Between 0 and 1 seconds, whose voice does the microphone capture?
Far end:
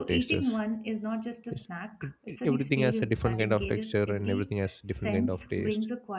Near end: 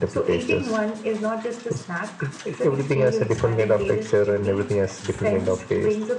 echo only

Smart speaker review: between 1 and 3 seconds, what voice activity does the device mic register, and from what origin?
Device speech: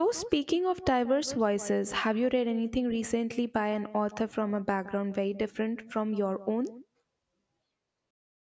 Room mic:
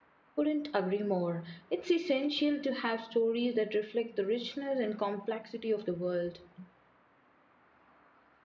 user only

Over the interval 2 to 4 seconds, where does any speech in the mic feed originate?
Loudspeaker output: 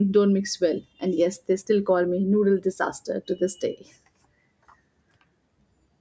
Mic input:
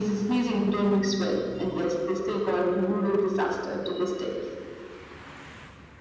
echo only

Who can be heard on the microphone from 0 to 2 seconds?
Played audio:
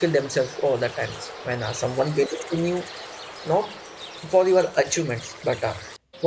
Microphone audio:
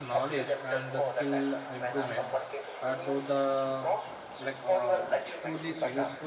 both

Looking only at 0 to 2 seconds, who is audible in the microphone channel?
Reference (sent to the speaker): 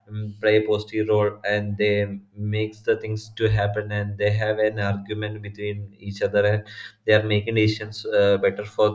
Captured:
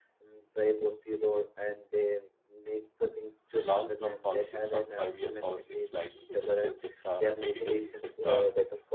echo only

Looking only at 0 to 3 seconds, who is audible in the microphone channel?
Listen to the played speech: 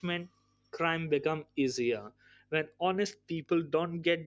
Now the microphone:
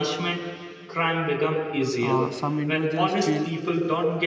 both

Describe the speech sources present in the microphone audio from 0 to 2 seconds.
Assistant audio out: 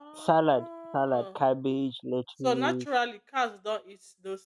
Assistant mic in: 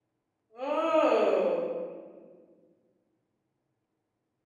user only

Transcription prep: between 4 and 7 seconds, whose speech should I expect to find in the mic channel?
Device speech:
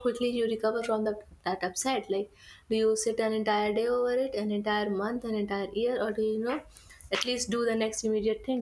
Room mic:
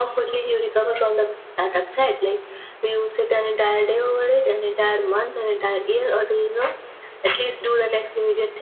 echo only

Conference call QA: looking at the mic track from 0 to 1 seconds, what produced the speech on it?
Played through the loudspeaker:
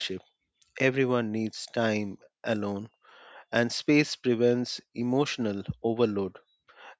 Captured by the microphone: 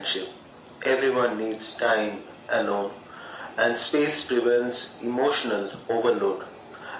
echo only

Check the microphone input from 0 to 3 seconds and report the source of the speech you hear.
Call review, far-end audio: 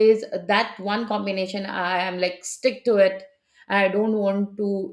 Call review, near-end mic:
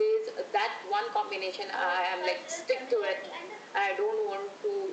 both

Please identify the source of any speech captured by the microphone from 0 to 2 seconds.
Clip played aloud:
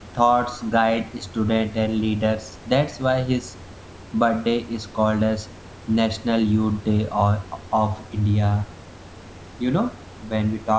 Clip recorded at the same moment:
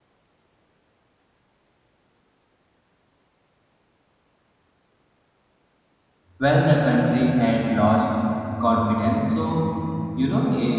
neither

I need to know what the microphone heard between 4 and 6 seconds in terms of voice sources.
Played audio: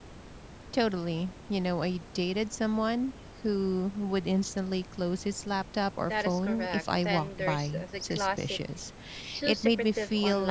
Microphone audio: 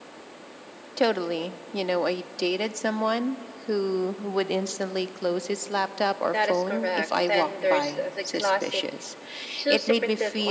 echo only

